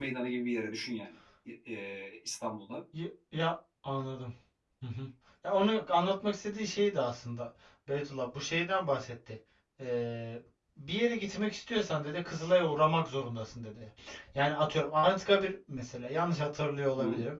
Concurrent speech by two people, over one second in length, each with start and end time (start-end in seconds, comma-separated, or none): none